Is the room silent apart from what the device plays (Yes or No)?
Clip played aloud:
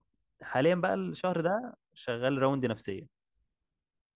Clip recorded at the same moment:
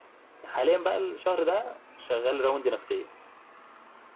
Yes